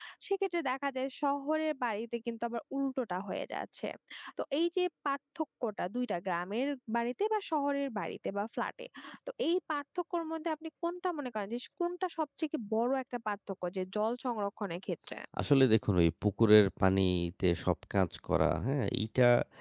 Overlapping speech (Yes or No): No